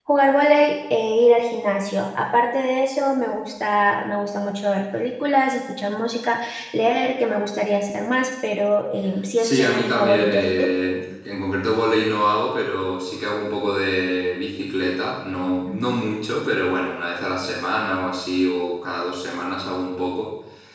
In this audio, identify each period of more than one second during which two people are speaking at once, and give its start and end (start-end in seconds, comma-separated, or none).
9.4-10.7